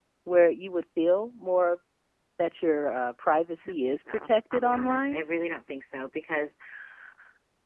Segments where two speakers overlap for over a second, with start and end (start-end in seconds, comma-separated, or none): 3.6-5.2